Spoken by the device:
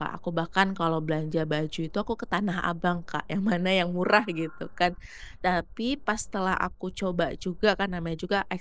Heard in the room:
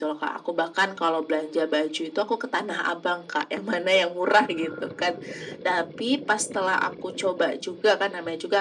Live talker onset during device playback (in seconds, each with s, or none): none